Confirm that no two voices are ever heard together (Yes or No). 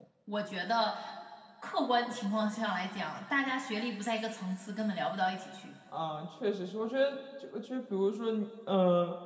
Yes